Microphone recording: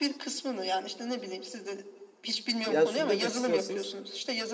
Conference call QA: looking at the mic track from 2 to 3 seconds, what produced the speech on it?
both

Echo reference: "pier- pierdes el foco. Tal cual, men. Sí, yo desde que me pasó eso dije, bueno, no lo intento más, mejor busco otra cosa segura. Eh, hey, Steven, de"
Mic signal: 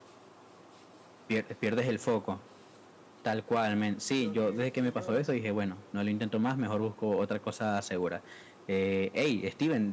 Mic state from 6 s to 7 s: echo only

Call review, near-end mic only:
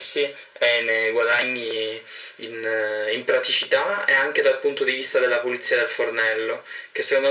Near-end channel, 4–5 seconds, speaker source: echo only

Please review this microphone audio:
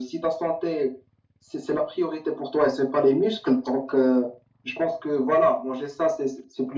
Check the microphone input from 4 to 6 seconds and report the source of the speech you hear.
echo only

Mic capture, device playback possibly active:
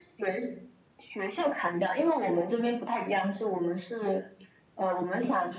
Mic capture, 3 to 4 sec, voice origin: echo only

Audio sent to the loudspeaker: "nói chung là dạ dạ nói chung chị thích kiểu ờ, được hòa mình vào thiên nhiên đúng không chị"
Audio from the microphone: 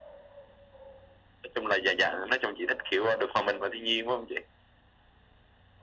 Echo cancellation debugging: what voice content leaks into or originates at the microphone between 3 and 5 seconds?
echo only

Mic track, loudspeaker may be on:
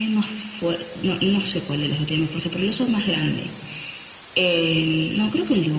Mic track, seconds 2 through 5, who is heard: echo only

